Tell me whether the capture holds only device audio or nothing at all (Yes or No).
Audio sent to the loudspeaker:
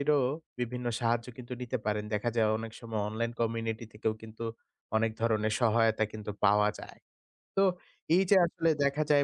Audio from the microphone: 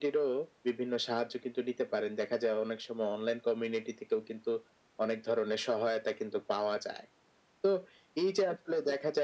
Yes